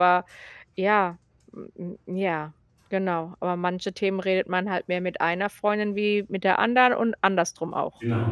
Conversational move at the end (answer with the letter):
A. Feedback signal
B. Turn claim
B